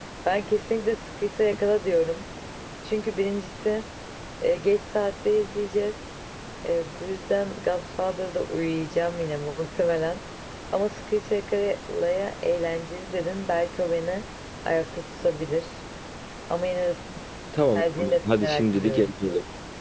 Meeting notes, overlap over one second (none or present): present